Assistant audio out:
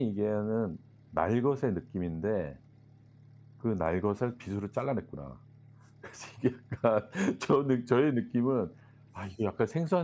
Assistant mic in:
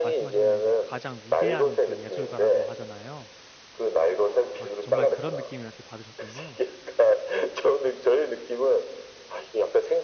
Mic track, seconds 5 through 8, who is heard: both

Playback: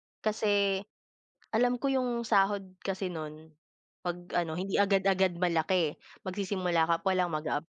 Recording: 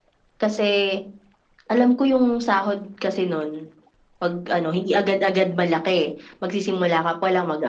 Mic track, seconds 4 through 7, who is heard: echo only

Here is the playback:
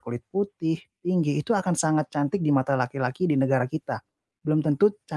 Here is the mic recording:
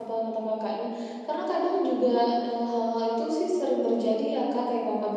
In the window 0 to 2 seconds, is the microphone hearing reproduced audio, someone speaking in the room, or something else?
user only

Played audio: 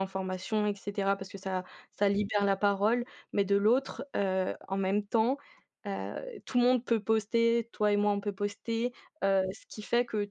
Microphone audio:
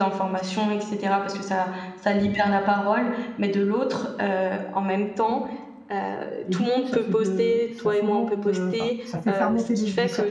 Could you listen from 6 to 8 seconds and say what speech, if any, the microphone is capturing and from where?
both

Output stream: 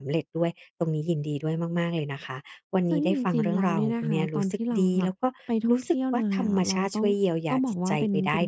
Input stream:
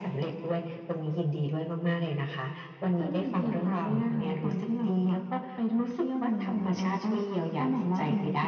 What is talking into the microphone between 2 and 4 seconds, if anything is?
echo only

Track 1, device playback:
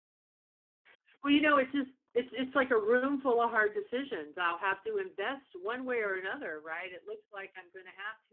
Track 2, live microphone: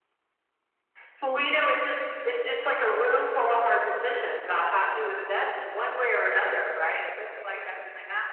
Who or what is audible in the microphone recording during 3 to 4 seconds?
echo only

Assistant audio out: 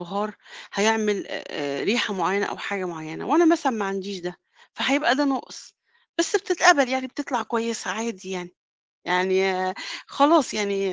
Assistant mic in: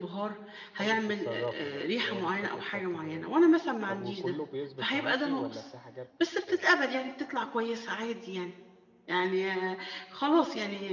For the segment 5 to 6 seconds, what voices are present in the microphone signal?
both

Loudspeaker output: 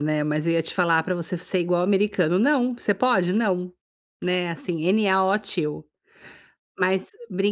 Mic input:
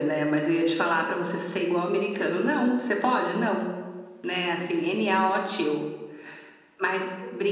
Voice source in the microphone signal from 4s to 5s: echo only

